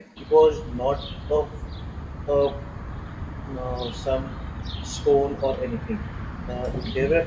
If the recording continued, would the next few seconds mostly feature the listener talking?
No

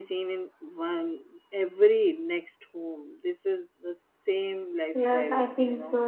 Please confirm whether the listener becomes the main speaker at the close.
Yes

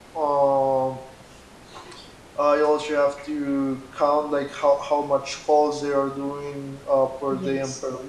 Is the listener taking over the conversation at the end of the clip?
No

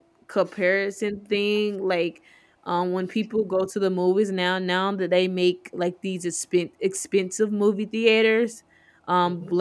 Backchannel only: Yes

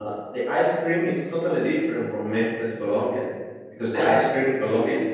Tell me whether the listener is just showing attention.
Yes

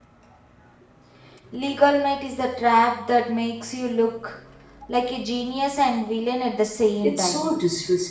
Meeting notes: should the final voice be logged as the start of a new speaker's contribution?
Yes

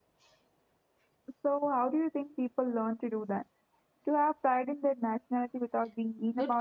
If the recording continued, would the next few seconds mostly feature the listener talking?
Yes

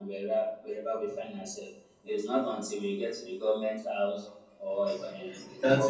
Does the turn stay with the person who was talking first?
No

